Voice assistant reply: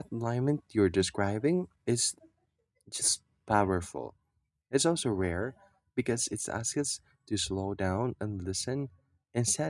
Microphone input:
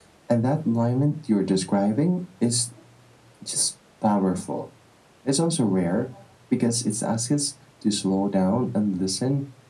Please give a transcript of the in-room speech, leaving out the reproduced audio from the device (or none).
none